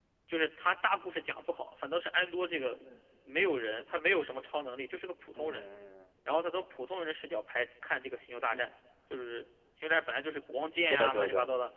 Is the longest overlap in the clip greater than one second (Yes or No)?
No